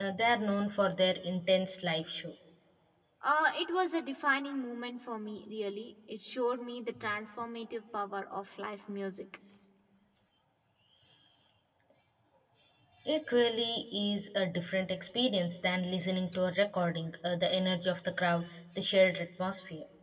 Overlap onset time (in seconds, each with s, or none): none